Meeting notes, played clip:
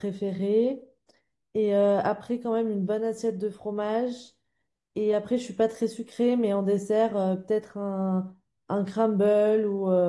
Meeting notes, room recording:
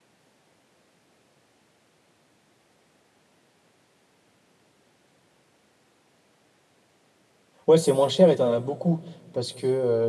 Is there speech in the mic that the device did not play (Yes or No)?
Yes